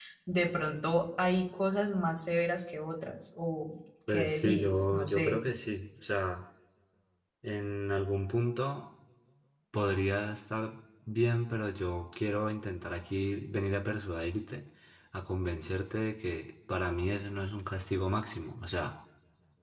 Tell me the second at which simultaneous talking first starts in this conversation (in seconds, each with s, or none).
4.1 s